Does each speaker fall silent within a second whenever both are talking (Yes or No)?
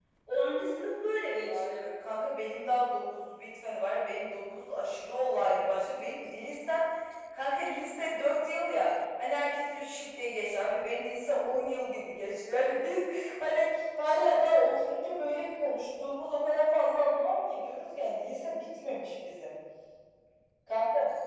Yes